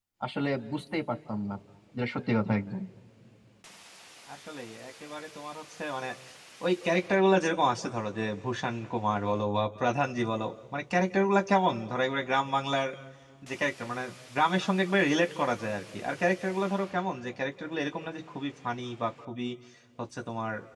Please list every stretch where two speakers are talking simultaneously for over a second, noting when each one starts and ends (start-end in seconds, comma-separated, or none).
none